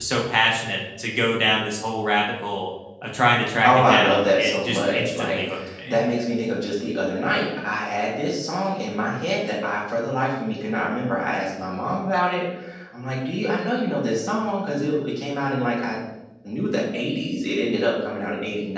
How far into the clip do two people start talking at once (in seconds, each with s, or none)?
3.6 s